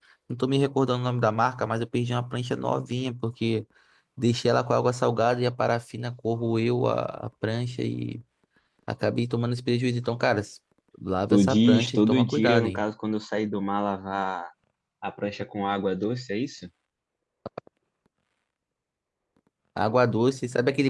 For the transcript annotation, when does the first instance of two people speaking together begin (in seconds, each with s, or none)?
11.3 s